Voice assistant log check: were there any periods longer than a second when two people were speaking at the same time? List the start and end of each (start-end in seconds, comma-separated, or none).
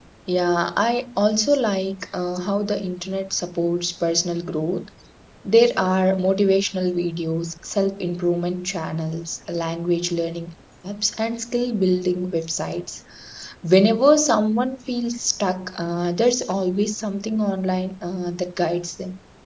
none